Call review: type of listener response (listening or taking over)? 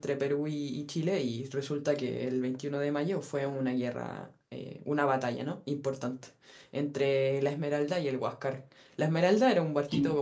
listening